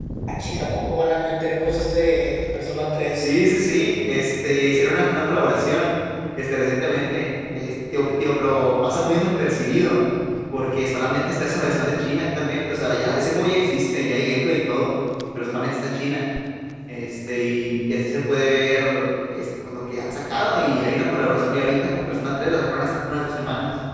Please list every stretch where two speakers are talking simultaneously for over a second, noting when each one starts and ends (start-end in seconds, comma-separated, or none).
none